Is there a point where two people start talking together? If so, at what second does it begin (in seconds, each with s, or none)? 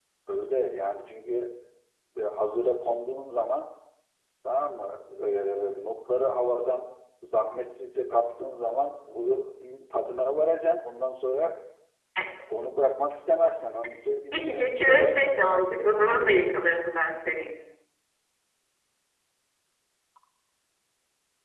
14.3 s